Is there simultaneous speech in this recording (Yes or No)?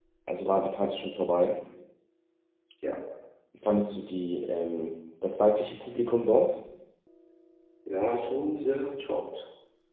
No